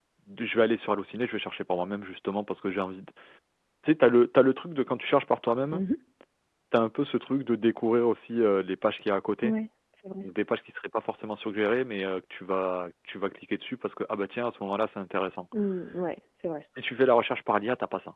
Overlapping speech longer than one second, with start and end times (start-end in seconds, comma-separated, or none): none